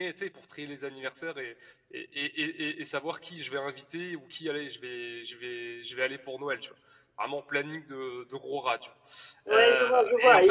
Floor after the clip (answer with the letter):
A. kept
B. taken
B